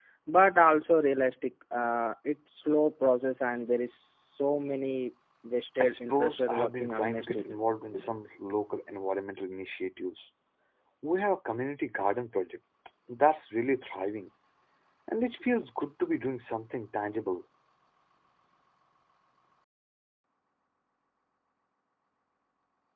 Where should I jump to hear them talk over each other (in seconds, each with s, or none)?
5.8 s